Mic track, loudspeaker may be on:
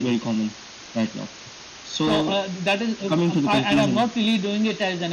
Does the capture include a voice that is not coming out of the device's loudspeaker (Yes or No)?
No